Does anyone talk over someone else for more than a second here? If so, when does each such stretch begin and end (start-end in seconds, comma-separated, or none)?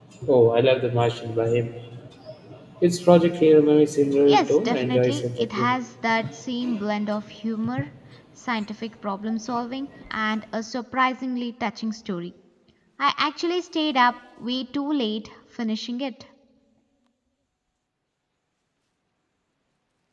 4.2-5.7